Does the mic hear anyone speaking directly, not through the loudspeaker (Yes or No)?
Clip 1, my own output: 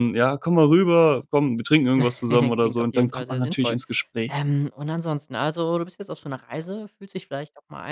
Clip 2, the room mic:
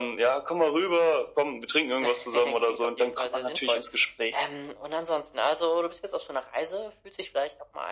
No